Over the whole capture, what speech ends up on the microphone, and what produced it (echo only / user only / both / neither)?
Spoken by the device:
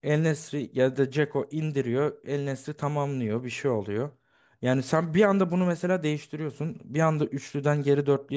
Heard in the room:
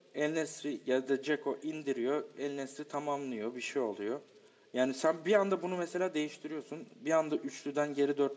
echo only